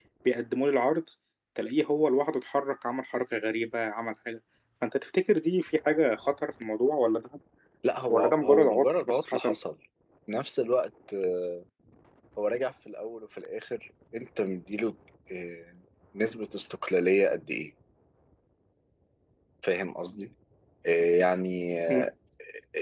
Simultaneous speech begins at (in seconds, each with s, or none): 8.1 s